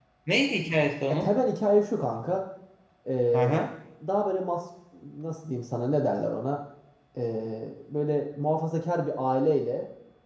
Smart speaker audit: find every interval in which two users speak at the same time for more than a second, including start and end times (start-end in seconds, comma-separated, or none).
none